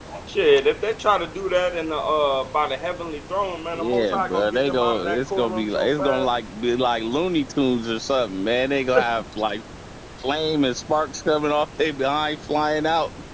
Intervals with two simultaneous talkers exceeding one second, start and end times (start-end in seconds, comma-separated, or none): 3.7-6.3